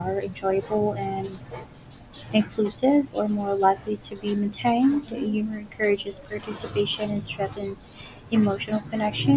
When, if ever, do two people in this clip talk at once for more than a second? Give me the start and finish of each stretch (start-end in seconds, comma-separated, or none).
none